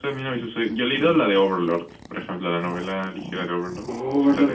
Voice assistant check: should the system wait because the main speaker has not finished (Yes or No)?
No